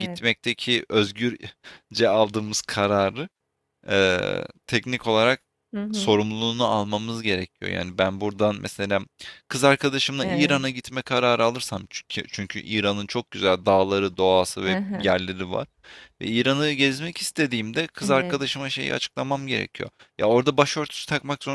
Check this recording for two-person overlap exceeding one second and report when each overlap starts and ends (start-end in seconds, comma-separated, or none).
none